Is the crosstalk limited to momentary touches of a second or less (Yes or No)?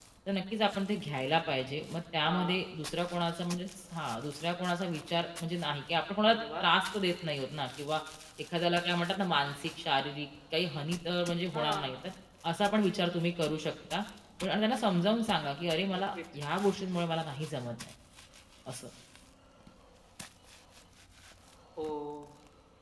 Yes